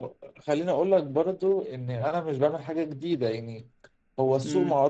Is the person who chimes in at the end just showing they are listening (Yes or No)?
Yes